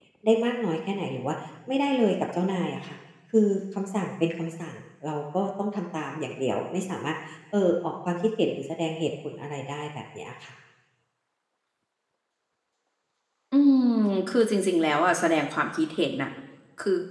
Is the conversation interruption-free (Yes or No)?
Yes